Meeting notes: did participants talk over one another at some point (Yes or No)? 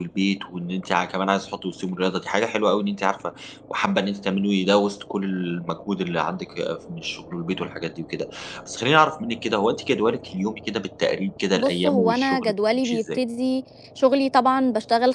Yes